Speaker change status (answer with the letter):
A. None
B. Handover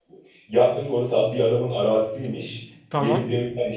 A